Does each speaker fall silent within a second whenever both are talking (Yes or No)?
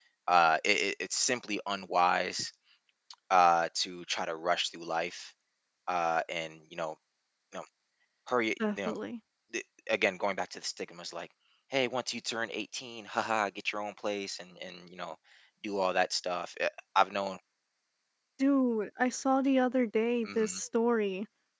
Yes